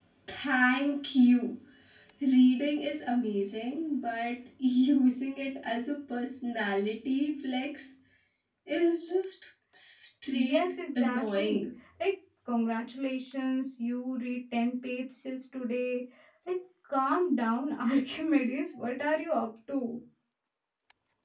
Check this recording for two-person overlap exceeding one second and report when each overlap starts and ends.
10.3-11.7

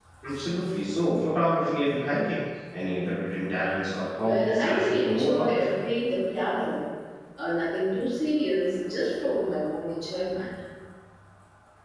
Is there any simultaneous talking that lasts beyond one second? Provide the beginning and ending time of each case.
4.2-5.5

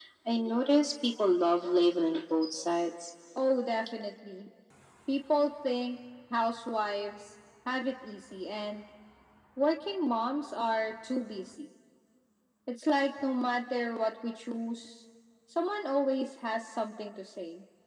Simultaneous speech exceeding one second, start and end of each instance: none

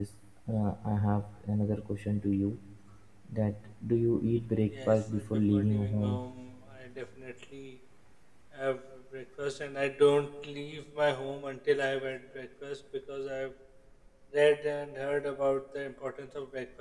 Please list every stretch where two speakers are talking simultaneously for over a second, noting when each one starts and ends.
4.9-6.2

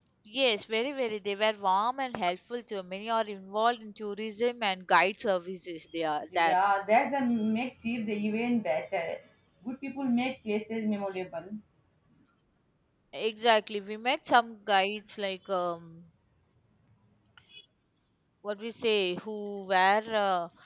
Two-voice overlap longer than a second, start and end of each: none

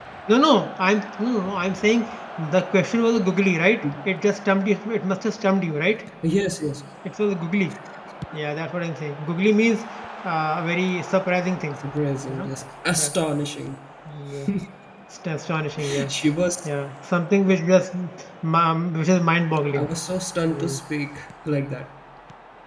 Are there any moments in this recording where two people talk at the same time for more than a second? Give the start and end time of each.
none

